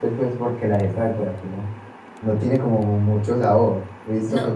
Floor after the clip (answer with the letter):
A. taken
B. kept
B